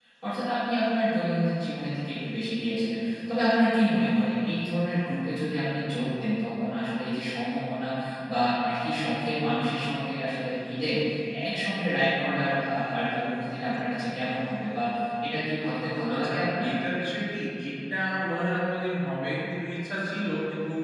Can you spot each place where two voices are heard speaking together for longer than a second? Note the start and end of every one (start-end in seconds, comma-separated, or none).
none